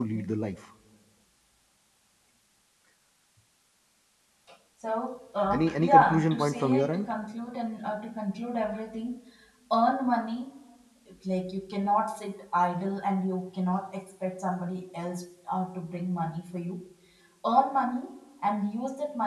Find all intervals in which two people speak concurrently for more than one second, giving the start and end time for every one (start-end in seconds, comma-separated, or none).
5.6-7.1